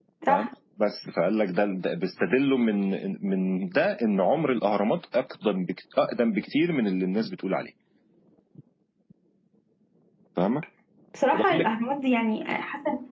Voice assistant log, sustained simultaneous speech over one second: none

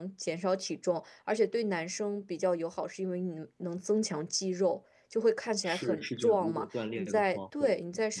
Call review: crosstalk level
present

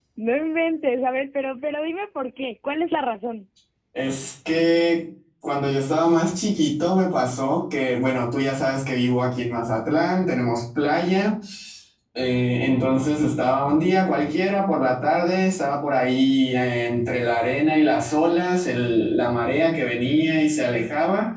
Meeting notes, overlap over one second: none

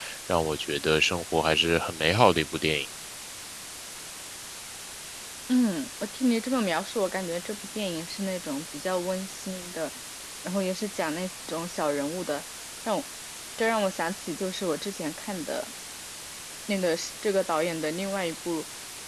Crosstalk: none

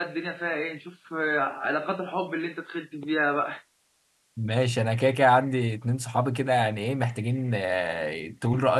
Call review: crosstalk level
none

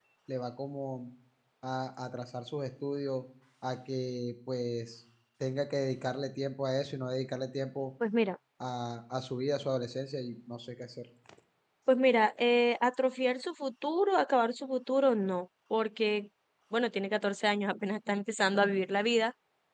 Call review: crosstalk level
none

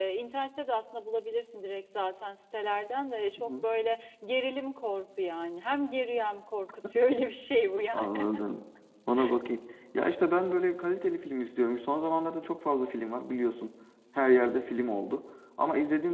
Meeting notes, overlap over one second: none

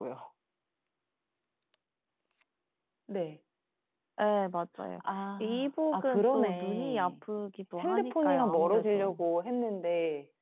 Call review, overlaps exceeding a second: present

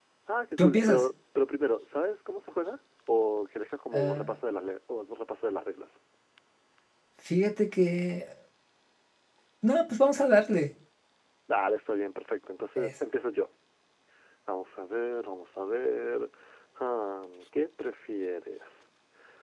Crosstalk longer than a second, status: none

